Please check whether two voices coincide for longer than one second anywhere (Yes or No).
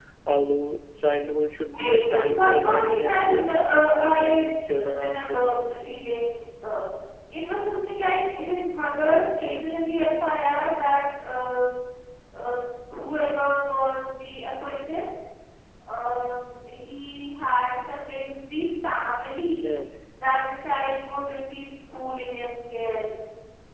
Yes